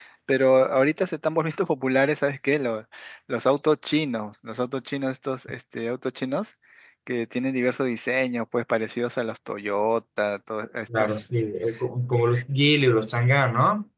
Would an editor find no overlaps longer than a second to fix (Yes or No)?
Yes